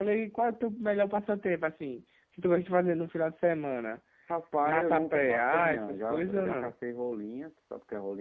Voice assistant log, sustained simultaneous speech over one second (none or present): present